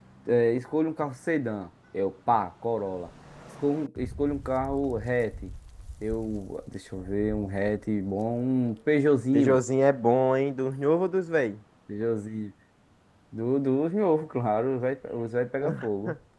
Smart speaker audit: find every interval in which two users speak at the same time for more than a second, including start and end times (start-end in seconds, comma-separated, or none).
none